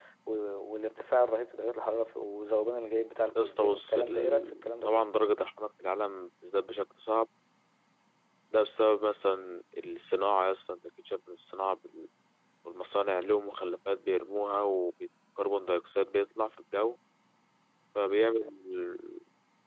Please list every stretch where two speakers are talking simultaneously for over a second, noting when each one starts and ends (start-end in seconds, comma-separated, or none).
3.4-4.9